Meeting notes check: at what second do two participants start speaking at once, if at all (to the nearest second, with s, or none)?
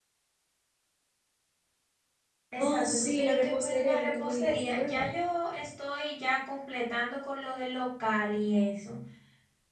3 s